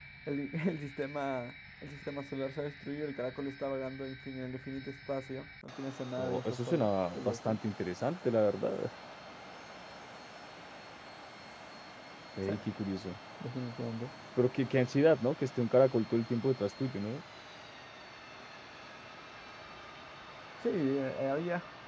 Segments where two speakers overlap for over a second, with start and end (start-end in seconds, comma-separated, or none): 6.2-7.6